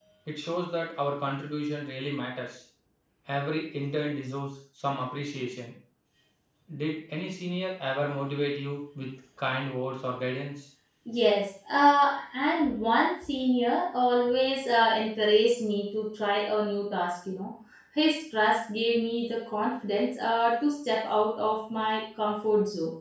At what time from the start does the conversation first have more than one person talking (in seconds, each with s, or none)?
none